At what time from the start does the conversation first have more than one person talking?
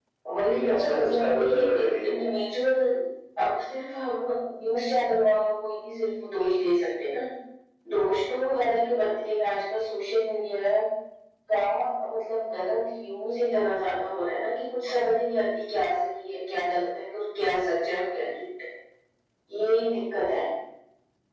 0.5 s

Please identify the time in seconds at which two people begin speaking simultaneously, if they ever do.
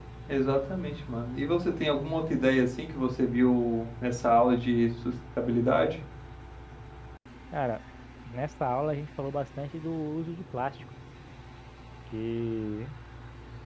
none

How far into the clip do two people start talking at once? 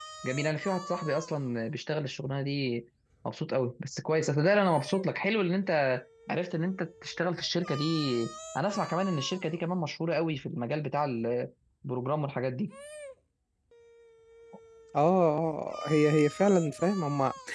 none

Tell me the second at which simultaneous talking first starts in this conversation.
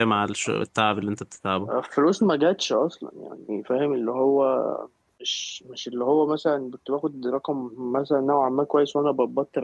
none

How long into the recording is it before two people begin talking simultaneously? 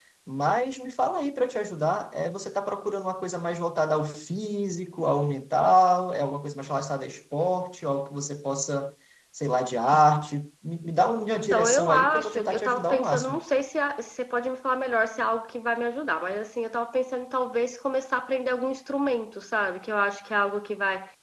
11.4 s

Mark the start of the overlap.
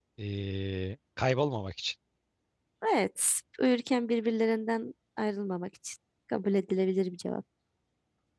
none

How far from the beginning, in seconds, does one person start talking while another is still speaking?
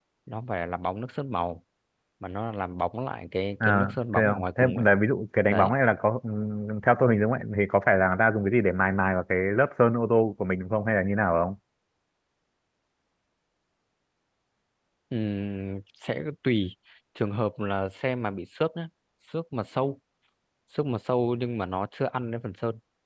3.6 s

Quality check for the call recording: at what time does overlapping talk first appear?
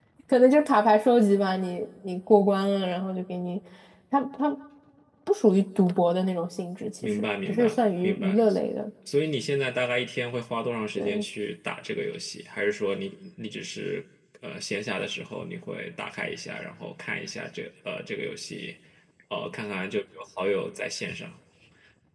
7.0 s

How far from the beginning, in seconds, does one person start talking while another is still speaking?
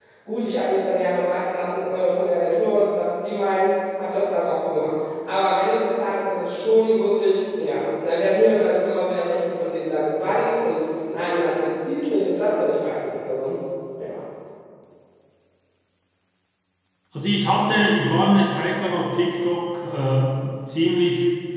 none

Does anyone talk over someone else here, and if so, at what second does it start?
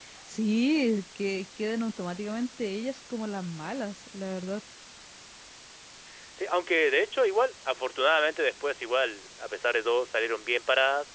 none

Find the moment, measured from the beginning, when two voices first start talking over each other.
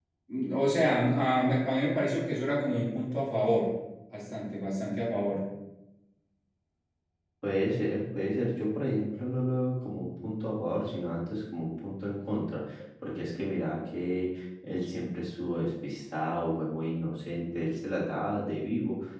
none

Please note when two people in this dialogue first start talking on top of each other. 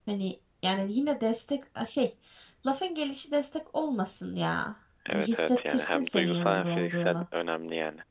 5.1 s

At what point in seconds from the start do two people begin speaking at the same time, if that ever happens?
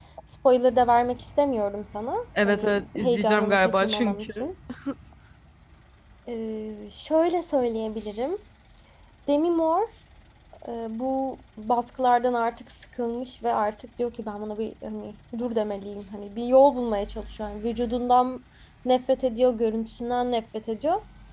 2.4 s

